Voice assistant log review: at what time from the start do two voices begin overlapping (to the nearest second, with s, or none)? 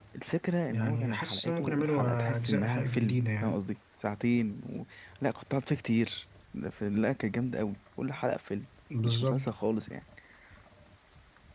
1 s